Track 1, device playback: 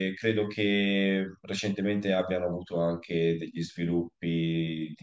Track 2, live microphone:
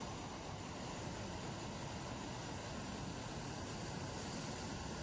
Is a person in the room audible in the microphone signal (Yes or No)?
No